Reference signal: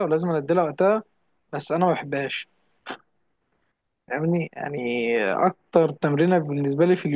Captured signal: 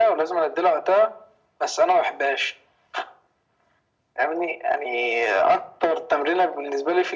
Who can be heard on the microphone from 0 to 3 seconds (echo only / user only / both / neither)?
echo only